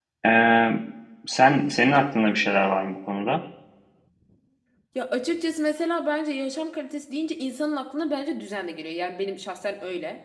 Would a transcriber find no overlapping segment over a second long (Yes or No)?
Yes